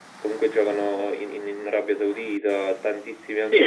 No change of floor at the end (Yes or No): No